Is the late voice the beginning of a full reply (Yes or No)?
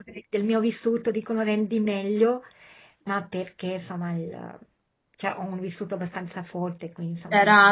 Yes